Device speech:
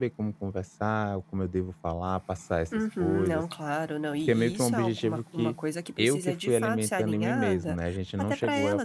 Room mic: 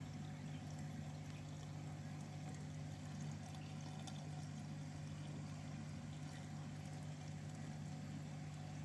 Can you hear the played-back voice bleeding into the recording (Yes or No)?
No